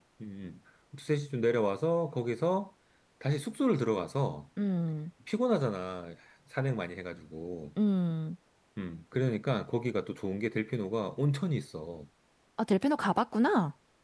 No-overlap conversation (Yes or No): Yes